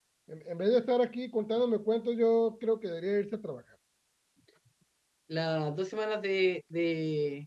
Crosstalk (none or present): none